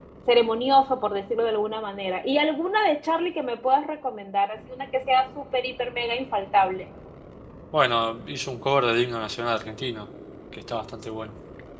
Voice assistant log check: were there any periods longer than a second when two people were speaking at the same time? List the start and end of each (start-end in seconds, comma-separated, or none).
none